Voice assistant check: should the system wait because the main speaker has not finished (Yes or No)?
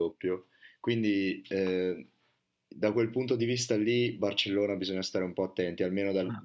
Yes